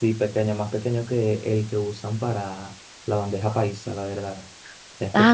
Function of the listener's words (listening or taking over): taking over